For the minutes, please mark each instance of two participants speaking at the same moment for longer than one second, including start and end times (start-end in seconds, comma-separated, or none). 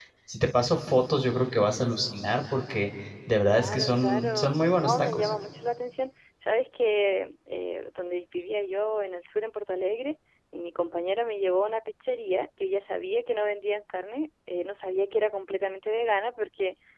3.5-5.3